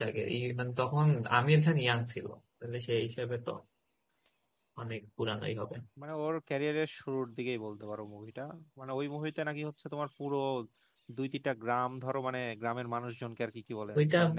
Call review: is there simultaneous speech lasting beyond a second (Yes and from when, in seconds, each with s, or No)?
No